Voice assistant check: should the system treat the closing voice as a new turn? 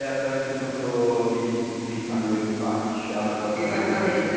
Yes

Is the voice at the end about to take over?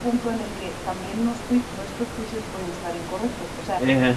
No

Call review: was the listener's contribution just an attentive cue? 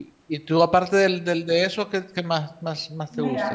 No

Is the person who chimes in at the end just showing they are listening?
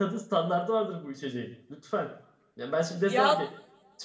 Yes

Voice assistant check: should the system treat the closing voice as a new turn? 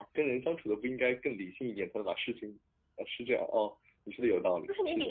Yes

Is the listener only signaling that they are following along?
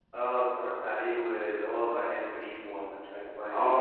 No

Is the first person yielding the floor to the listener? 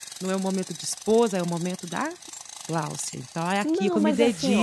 Yes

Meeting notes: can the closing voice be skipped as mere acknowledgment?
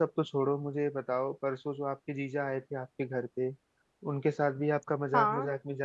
Yes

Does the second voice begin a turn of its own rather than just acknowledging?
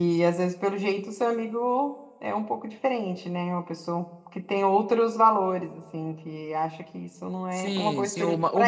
Yes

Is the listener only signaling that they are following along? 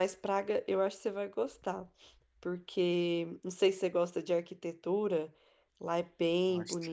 Yes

